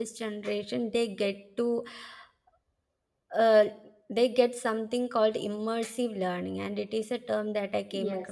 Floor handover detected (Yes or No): Yes